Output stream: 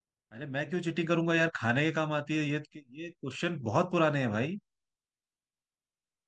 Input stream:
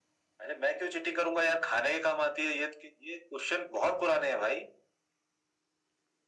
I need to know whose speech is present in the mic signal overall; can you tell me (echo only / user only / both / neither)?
echo only